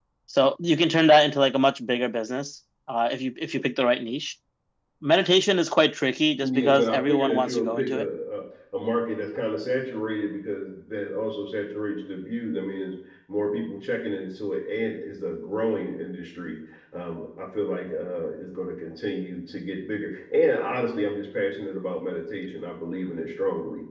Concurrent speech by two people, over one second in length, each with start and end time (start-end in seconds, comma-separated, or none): 6.4-8.1